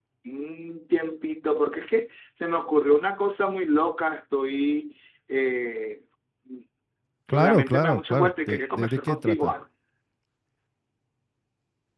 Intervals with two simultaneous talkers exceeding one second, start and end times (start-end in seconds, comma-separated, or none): 7.3-9.5